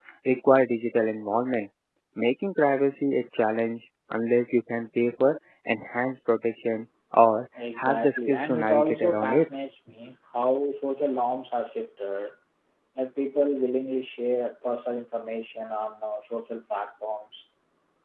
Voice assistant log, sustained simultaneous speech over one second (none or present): present